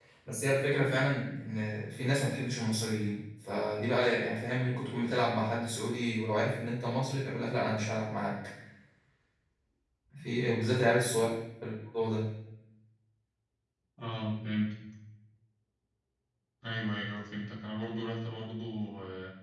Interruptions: none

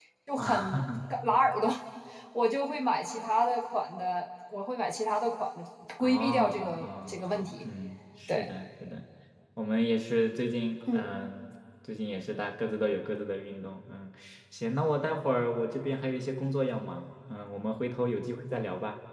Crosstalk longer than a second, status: present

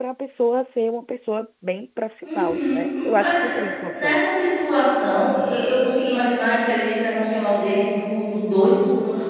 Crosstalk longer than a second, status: present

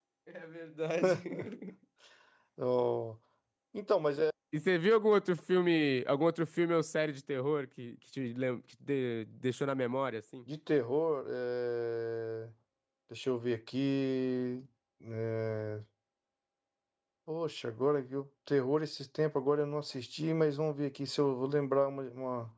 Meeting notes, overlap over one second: none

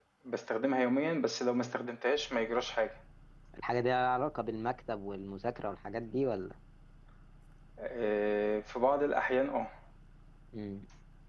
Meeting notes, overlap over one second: none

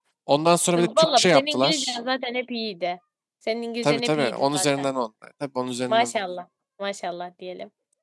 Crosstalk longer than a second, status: present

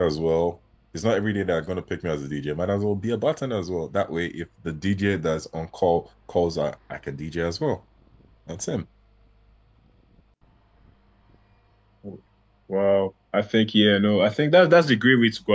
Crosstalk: none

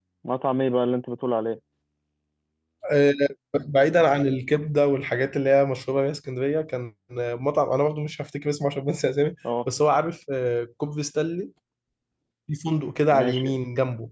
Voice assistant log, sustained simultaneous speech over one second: none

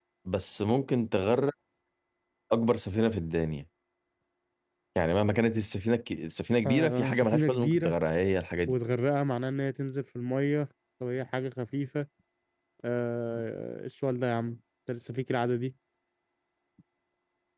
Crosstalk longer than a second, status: present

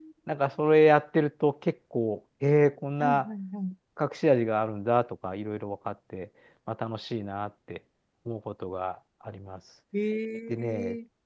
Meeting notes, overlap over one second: none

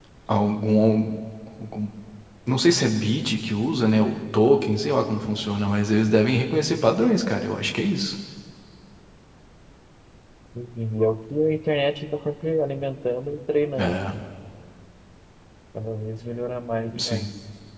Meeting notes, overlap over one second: none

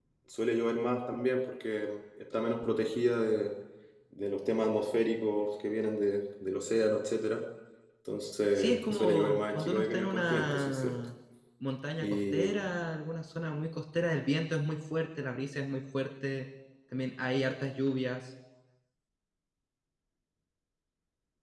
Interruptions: present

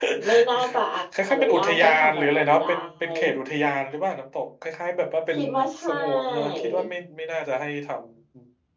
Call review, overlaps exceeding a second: present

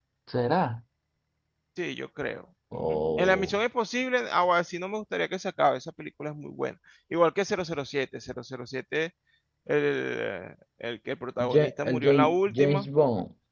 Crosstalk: present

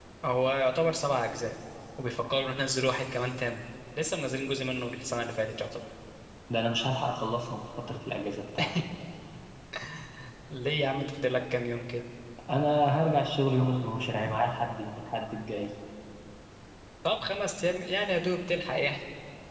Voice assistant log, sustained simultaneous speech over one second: none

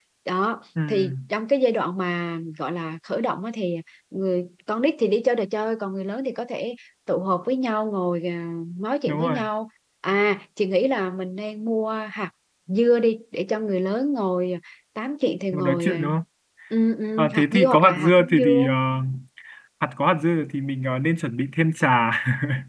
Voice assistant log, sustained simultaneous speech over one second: present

